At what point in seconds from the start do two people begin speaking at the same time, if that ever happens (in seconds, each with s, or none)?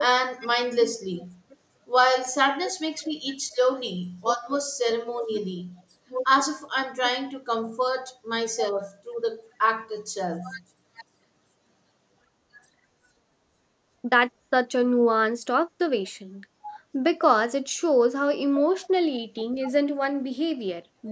none